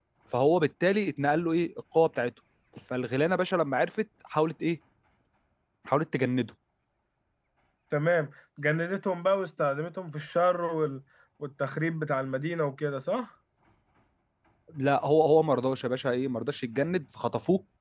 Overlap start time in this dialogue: none

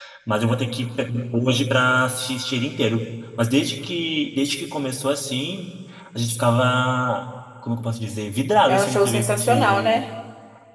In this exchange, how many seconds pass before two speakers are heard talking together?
9 s

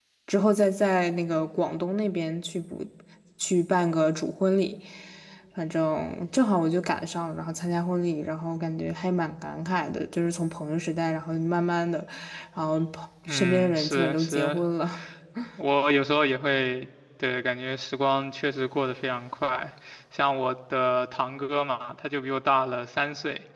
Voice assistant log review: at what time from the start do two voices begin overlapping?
13 s

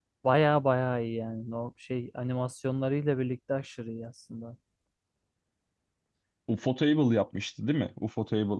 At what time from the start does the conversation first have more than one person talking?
none

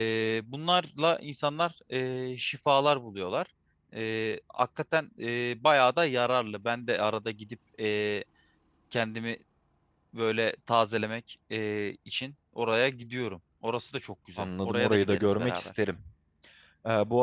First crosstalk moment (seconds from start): 14 s

